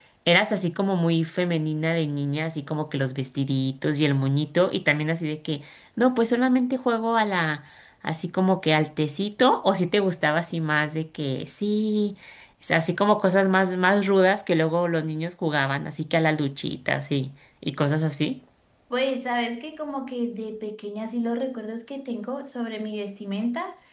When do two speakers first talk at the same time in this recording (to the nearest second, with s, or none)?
none